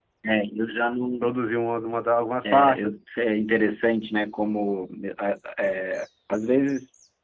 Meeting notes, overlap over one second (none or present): none